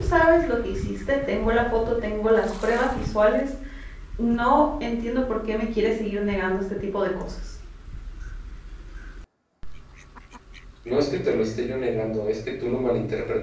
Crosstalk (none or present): none